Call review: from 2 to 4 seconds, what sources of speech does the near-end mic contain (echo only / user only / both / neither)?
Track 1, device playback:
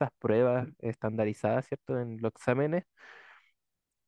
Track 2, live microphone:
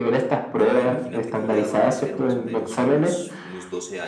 both